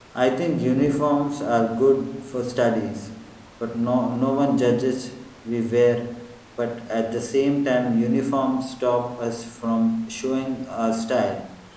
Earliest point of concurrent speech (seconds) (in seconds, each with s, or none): none